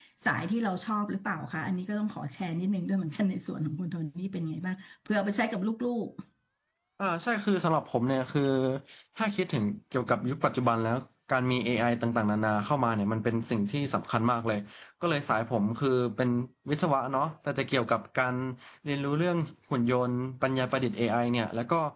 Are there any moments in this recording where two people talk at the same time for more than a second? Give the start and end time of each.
none

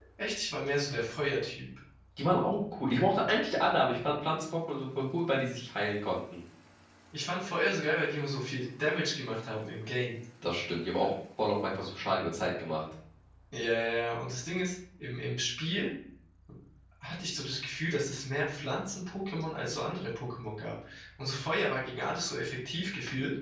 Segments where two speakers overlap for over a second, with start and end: none

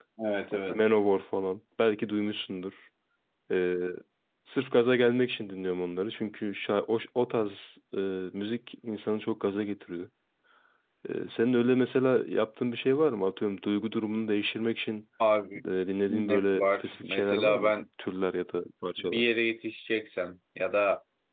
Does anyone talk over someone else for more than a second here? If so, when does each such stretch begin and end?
16.1-17.7

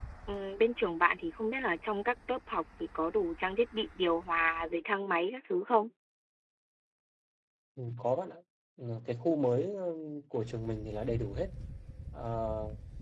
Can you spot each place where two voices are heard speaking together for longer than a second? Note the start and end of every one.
none

